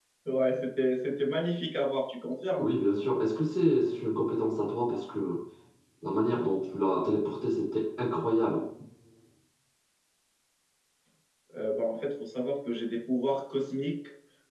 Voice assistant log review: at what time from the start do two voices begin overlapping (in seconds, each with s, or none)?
none